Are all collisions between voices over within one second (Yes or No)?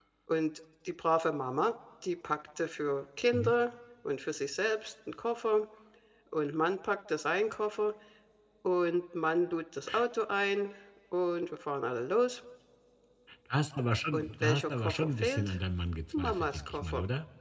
No